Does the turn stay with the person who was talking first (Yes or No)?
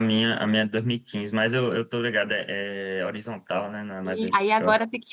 No